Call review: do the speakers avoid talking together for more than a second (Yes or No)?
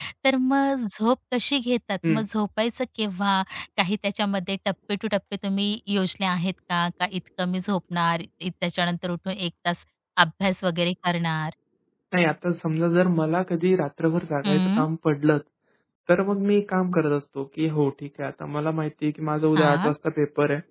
Yes